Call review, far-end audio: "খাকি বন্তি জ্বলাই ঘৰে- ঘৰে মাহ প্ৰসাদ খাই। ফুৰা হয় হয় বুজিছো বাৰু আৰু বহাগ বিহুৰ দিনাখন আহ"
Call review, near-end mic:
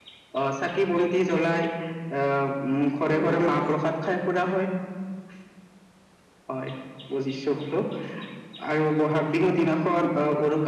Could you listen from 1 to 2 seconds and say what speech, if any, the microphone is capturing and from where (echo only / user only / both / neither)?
echo only